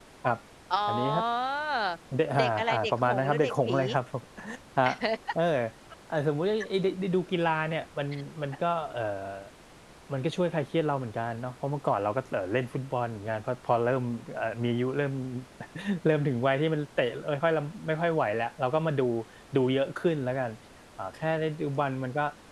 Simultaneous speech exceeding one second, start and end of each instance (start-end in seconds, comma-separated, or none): 2.4-3.8